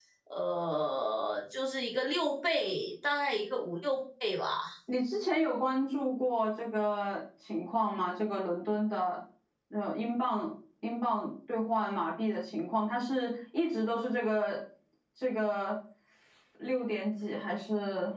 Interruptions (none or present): none